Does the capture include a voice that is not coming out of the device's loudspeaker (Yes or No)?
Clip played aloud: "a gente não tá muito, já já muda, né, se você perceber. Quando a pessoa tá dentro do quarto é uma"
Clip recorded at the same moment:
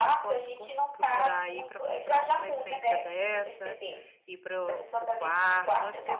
Yes